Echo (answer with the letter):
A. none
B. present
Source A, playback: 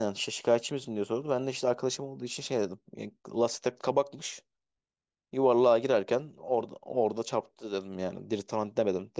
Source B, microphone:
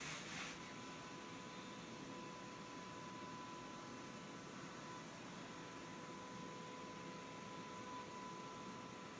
A